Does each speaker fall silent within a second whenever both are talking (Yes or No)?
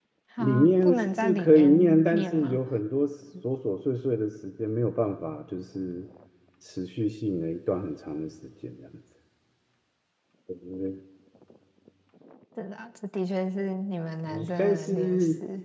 No